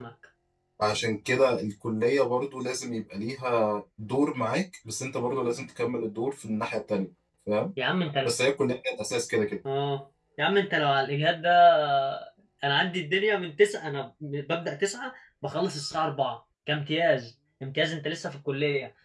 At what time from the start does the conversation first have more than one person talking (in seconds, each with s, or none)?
none